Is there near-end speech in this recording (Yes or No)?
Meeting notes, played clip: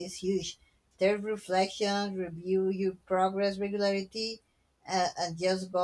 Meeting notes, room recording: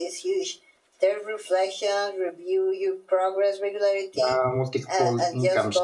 Yes